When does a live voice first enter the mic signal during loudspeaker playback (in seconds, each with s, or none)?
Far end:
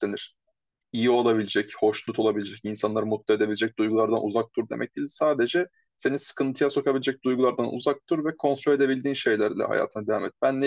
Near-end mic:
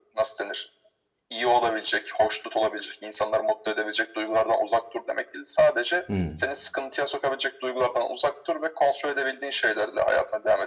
6.1 s